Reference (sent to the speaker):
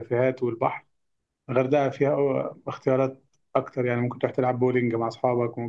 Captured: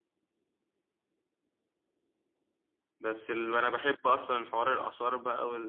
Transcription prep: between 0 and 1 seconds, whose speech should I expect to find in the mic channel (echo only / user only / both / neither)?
neither